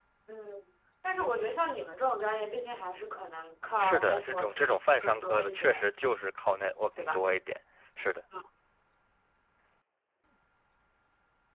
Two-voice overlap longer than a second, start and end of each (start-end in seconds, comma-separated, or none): 3.8-5.9